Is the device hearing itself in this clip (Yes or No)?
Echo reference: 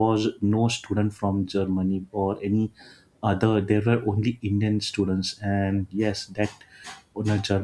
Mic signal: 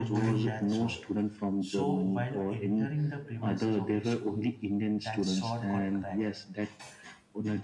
Yes